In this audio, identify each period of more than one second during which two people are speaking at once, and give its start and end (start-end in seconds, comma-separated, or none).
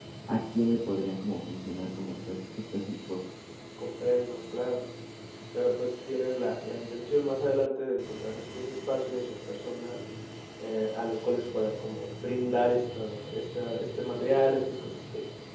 none